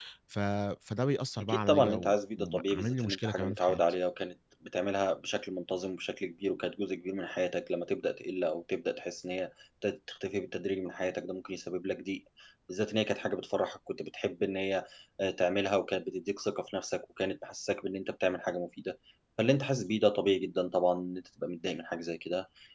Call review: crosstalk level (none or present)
present